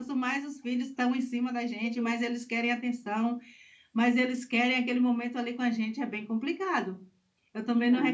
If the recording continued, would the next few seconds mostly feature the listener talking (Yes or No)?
No